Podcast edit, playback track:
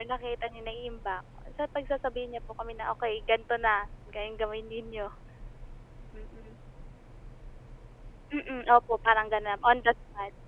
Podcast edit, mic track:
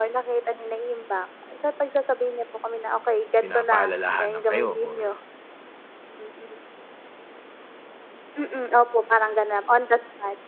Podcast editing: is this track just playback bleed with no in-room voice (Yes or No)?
No